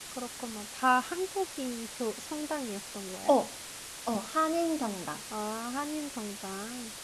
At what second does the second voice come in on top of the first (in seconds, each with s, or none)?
none